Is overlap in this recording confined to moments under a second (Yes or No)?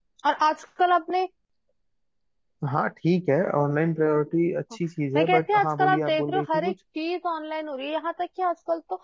No